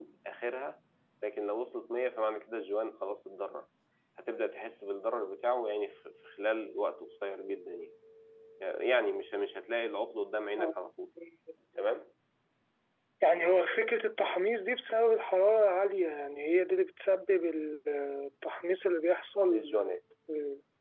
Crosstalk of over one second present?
No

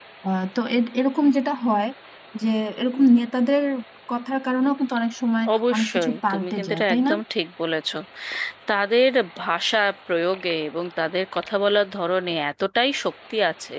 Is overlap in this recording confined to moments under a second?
No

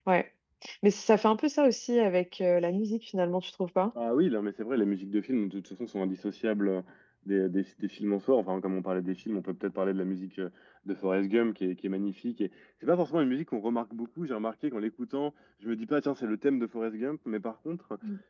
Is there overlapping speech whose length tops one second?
No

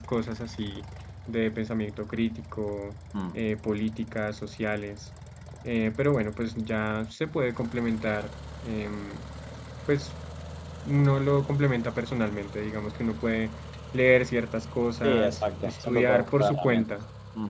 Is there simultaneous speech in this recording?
Yes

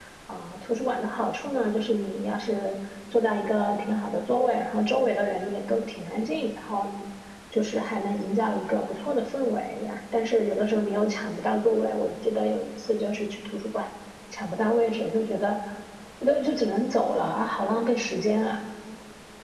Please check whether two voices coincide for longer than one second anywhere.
No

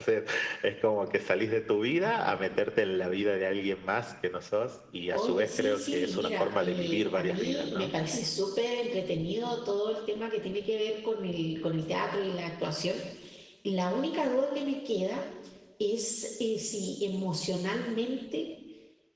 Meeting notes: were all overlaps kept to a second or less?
No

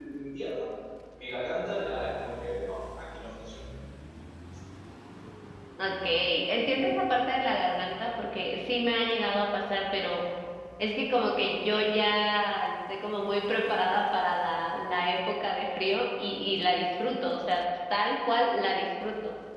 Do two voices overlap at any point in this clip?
No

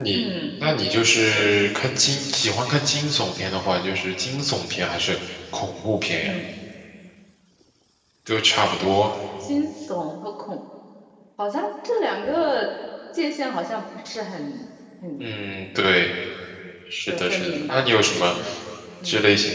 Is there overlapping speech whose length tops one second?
Yes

